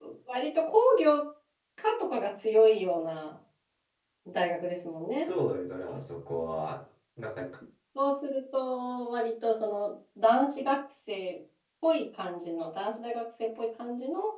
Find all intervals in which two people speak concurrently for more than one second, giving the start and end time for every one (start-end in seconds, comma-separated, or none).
none